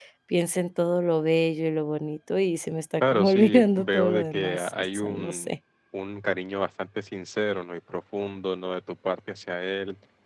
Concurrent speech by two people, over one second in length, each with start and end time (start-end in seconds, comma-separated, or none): 3.0-5.5